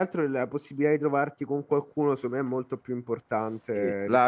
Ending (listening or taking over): taking over